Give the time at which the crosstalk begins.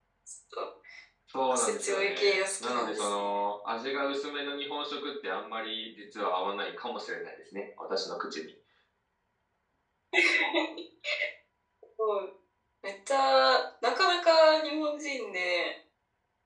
1.5 s

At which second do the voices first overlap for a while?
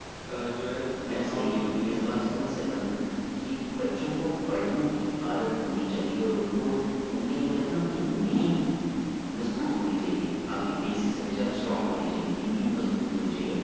1.0 s

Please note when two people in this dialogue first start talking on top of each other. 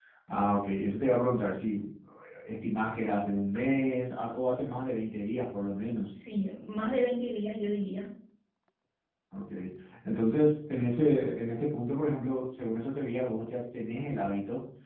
none

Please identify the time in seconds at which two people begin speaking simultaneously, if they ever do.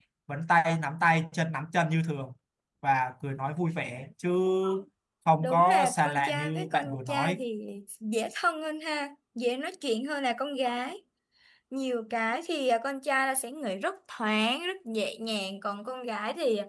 5.4 s

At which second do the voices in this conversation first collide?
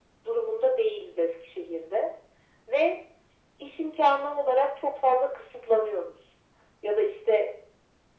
none

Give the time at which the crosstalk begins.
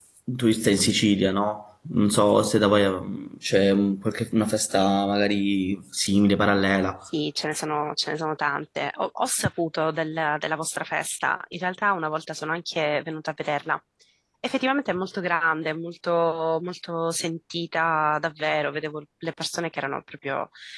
none

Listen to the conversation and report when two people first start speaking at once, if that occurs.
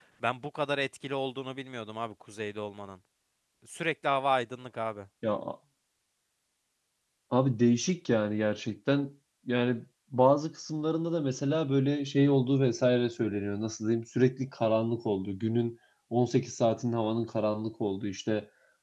none

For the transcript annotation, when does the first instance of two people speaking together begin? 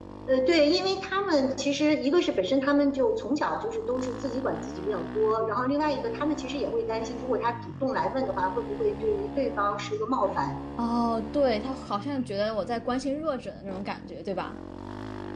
none

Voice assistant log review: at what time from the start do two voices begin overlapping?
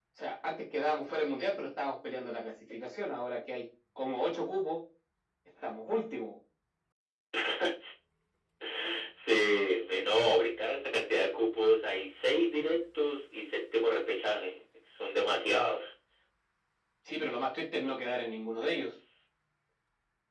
none

